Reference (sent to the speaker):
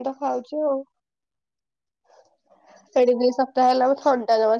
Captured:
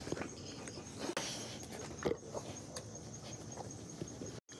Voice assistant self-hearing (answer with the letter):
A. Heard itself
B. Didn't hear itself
B